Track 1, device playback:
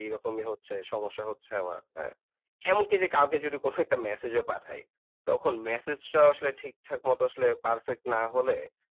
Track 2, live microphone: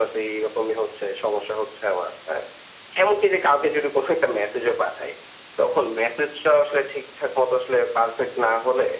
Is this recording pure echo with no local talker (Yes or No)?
Yes